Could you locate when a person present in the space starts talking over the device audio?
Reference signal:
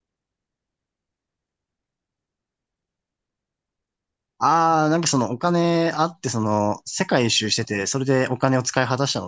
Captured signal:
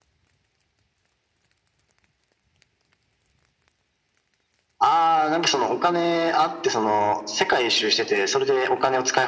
none

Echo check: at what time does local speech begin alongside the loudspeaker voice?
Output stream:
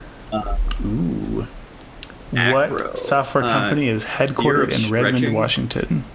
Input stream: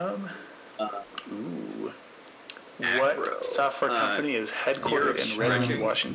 4.8 s

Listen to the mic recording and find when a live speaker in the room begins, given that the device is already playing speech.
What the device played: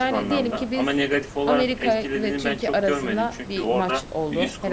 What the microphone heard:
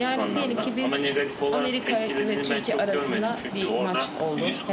none

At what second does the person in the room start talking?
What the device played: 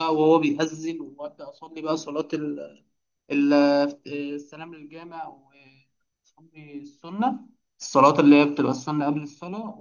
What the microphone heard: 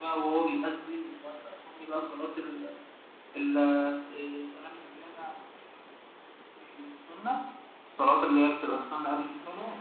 none

